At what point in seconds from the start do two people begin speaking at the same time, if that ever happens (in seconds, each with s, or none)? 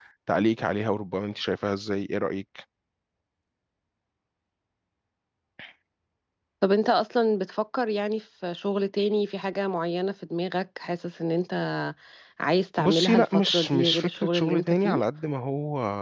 12.8 s